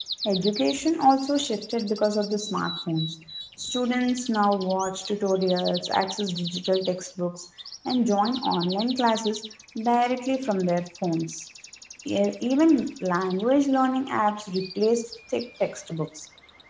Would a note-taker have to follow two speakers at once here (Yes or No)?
No